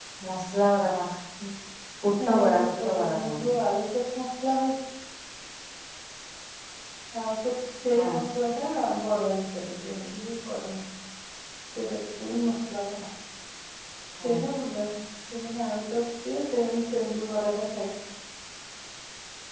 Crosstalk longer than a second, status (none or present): present